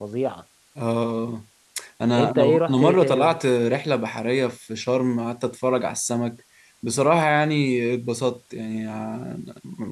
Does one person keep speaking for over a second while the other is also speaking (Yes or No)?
Yes